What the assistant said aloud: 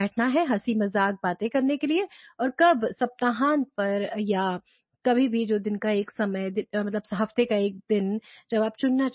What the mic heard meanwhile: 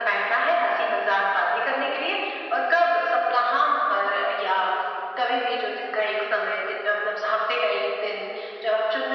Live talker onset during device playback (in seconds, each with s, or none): none